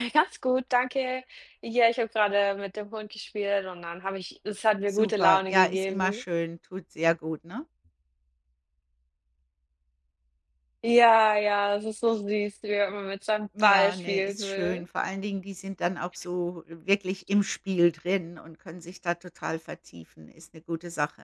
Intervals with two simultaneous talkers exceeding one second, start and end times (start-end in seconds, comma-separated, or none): 4.9-6.2, 13.6-14.8